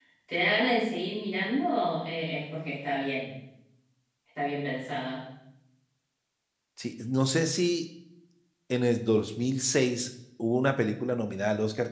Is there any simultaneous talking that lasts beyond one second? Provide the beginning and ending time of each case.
none

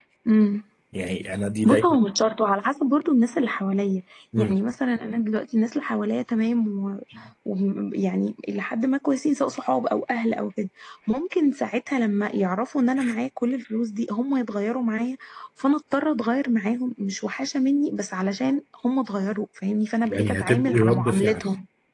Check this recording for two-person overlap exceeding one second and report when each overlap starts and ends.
20.1-21.4

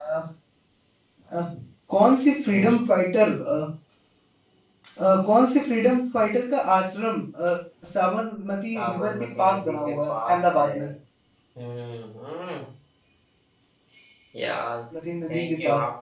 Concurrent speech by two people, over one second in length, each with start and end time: 8.7-10.7

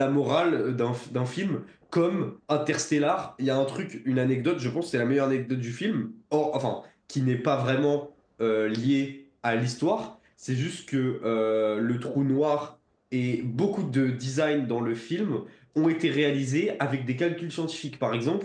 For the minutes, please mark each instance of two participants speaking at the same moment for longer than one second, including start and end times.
none

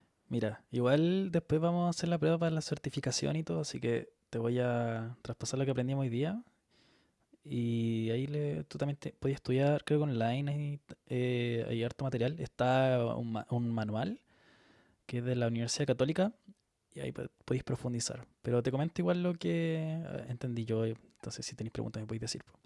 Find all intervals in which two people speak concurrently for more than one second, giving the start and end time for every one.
none

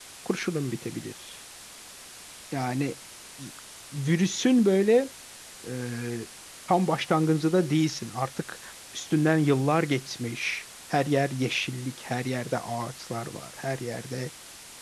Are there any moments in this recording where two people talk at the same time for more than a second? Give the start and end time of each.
none

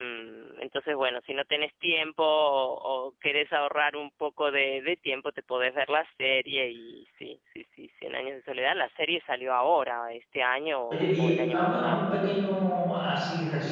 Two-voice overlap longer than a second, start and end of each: 10.9-12.2

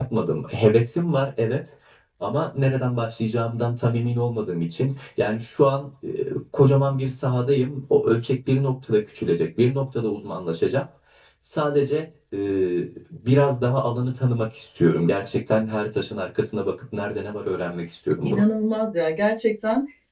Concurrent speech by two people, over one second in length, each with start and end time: none

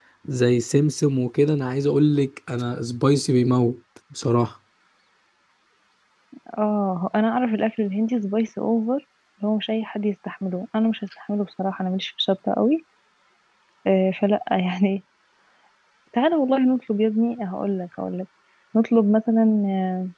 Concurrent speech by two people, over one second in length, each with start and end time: none

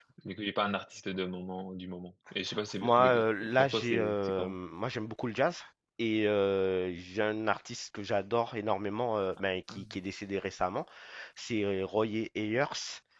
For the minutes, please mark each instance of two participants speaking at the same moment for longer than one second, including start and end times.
2.8-4.5

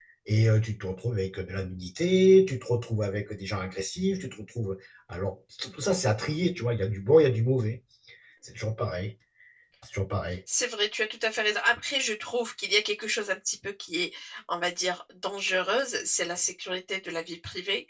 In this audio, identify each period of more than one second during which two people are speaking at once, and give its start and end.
none

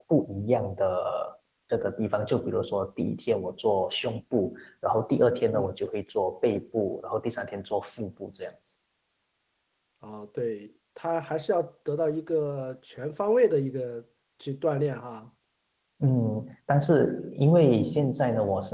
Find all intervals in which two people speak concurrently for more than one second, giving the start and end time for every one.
none

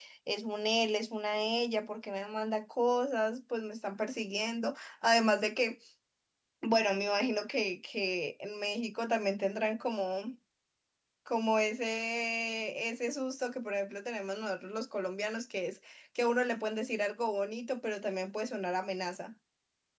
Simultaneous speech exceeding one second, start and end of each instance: none

